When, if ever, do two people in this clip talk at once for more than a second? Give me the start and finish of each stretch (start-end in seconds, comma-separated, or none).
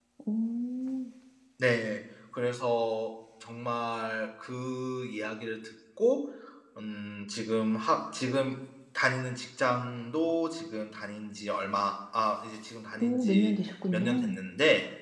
none